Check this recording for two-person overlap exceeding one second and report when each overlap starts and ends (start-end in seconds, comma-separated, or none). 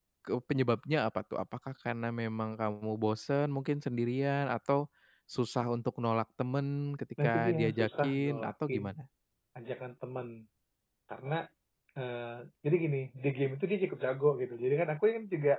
7.2-8.9